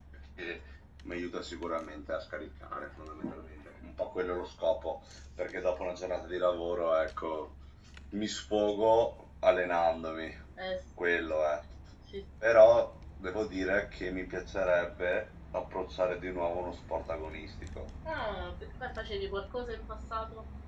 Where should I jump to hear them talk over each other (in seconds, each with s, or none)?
none